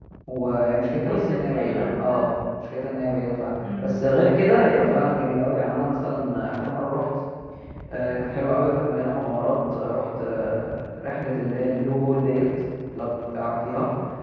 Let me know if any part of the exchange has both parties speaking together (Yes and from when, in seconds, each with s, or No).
Yes, from 1.1 s